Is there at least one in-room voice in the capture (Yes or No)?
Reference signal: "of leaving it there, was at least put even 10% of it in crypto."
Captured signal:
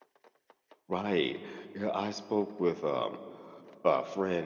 Yes